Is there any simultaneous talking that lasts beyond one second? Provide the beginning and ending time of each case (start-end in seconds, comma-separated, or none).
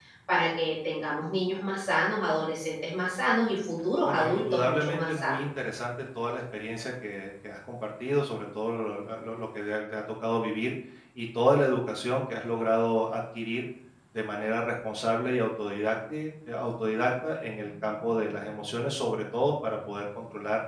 4.0-5.5